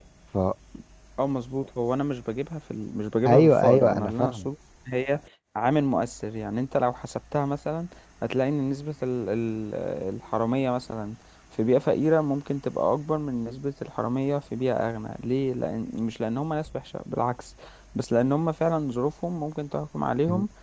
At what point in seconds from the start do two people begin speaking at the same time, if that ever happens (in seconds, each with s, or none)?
3.2 s